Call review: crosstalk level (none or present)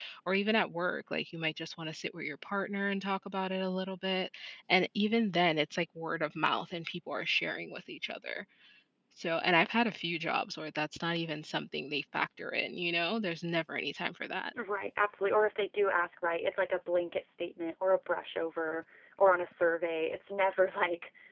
none